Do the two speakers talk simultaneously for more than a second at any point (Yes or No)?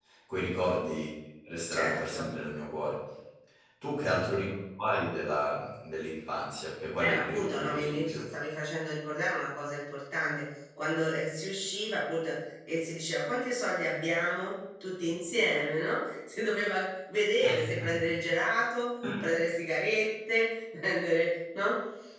Yes